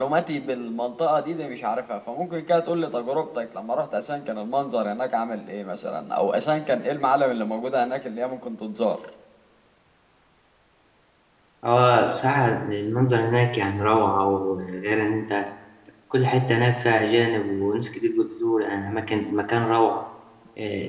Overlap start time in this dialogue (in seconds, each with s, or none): none